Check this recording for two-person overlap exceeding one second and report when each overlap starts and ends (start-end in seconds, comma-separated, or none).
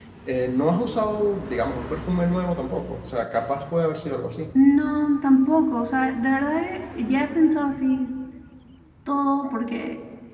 none